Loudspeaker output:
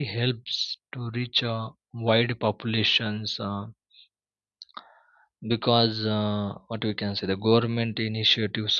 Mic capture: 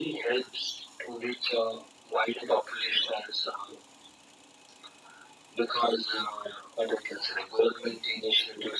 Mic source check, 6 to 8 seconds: echo only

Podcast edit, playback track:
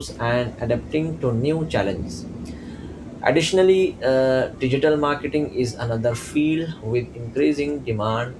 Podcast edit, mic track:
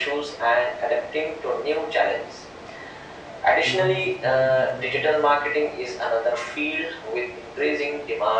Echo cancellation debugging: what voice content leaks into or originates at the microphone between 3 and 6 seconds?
both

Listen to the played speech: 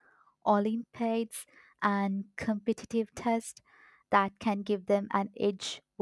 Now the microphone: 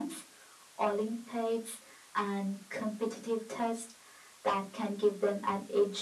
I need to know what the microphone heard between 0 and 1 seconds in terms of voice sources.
echo only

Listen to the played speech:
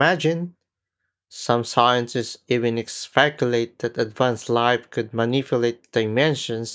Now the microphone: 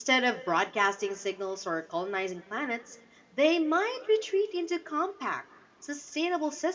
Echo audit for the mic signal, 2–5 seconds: user only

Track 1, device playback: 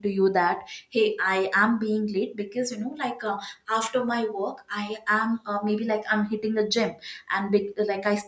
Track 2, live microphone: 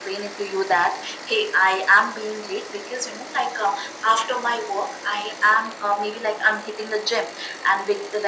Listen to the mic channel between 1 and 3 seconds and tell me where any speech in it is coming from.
echo only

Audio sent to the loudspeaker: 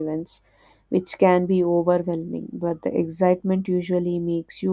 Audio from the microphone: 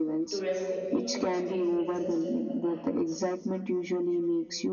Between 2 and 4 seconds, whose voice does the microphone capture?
both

